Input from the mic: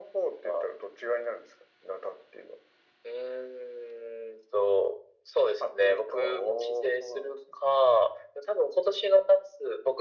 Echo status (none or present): present